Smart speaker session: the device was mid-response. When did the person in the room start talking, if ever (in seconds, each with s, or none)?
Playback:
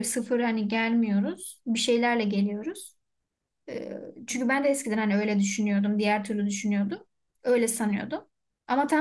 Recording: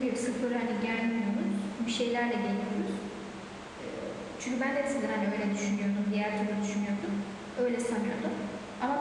none